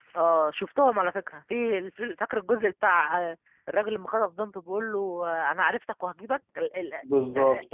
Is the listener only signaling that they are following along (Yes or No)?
No